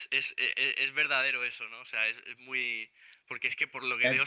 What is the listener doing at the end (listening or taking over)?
listening